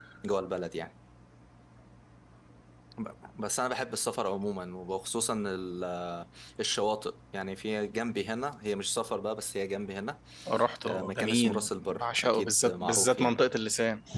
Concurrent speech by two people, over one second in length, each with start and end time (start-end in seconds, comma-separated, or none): 10.9-13.3